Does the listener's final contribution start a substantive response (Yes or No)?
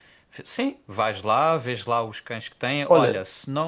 No